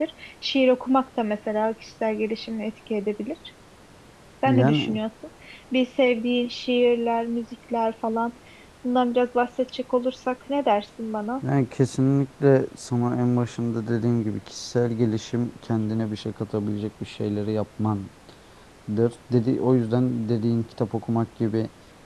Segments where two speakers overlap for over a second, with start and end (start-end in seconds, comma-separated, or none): none